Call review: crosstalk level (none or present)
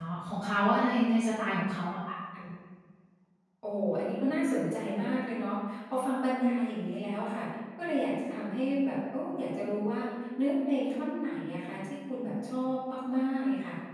none